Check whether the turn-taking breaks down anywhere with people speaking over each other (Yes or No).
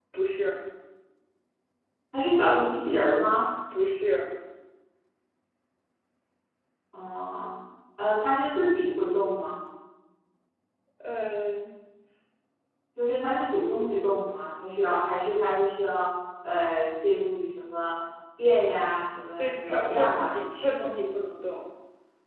Yes